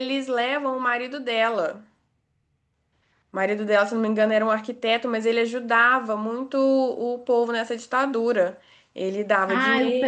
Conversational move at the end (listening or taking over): taking over